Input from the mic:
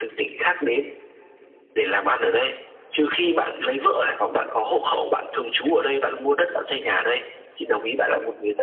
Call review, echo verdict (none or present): present